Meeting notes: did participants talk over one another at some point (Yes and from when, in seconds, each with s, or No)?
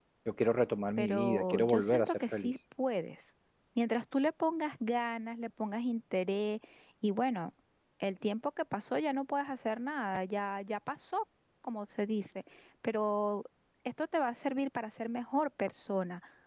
Yes, from 1.0 s